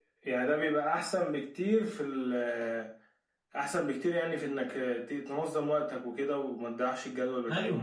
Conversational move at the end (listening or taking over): taking over